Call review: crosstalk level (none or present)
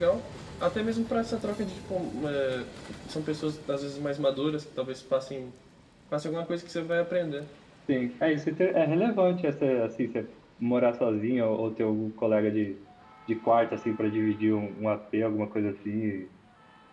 none